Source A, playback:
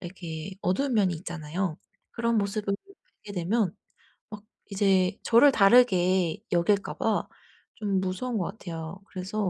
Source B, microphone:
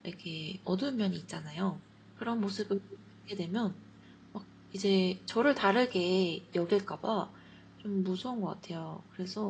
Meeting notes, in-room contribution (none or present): none